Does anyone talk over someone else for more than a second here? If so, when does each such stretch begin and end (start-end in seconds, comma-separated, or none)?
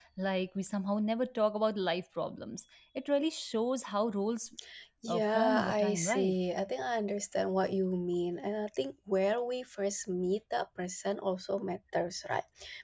5.1-6.3